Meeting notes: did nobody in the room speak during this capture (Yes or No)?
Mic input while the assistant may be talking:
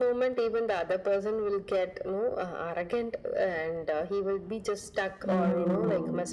No